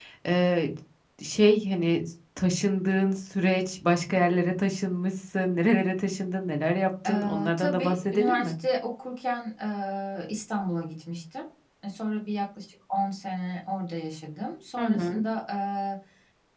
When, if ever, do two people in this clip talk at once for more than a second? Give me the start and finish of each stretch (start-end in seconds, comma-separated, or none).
7.1-8.5